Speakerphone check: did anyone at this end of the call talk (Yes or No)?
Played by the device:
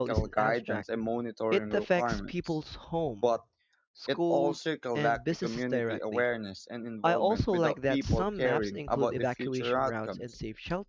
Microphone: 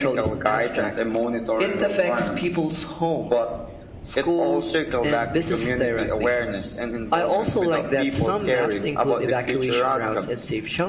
No